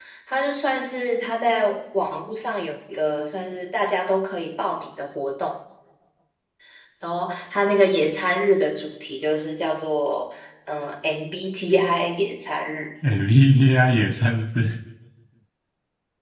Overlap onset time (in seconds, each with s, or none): none